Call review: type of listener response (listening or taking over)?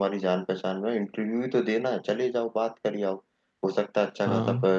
listening